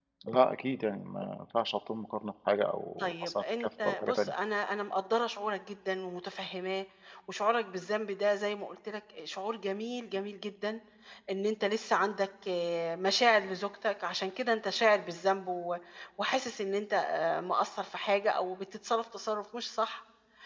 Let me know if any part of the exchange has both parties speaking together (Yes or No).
Yes